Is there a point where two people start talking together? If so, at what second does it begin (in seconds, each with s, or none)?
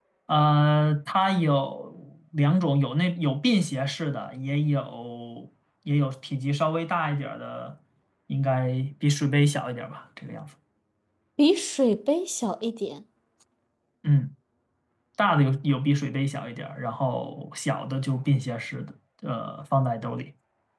none